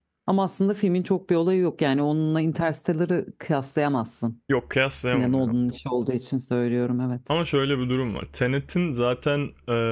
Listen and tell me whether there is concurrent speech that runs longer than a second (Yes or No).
No